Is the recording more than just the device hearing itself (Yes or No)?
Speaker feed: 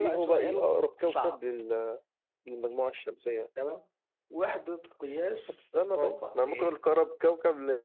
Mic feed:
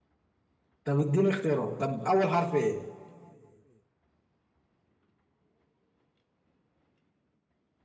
Yes